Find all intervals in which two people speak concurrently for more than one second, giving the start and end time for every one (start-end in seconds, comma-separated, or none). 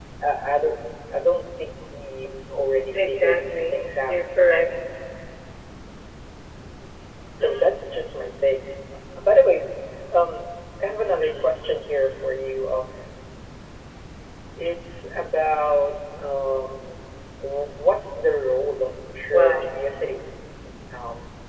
2.9-4.2